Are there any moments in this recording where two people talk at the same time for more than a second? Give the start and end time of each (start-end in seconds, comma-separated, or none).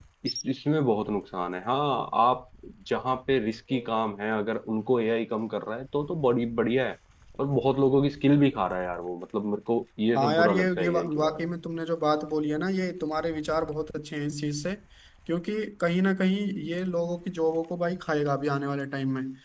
10.2-11.4